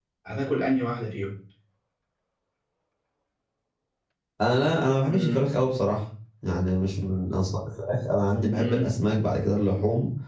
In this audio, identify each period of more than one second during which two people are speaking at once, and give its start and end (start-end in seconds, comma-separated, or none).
none